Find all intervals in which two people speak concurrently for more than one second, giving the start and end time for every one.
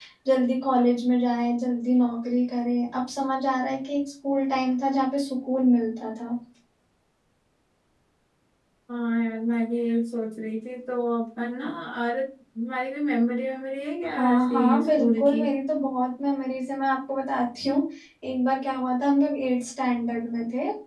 14.0-15.5

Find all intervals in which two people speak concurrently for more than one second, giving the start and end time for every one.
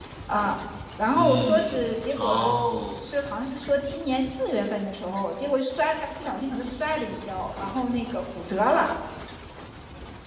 1.1-2.5

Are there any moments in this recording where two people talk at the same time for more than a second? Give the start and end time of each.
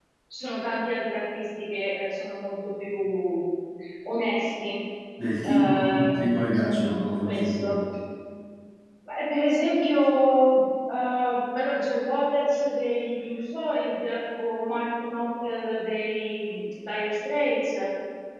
5.4-7.8

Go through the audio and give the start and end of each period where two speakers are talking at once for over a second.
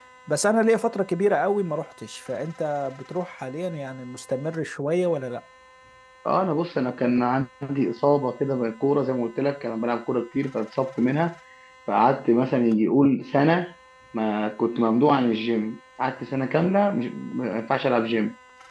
none

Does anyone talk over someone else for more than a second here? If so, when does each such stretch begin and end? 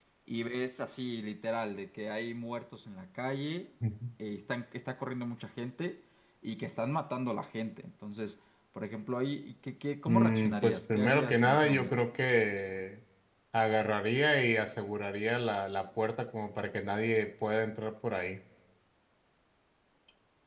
10.1-11.9

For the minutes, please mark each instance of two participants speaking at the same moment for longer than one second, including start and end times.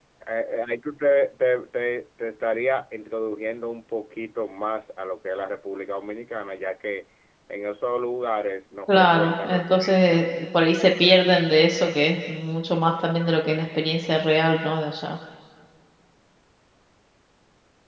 8.9-10.2

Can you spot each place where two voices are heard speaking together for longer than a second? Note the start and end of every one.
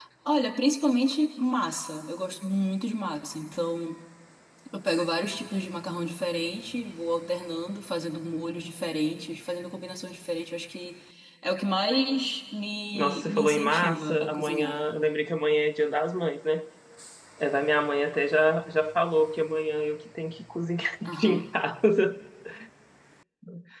12.9-14.8

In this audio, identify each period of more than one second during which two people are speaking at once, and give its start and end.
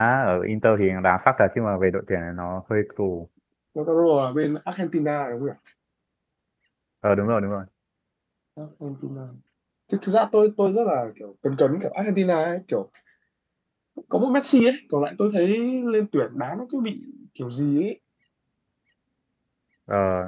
none

